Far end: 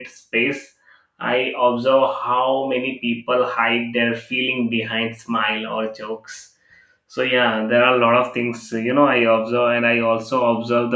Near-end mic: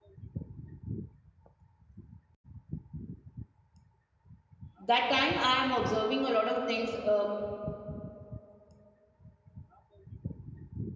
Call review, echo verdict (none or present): none